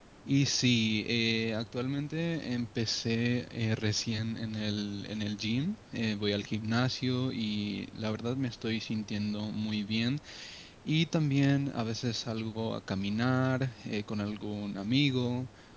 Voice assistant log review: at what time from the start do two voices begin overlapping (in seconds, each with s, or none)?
none